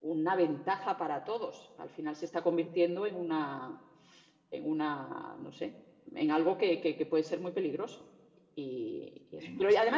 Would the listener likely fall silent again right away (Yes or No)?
Yes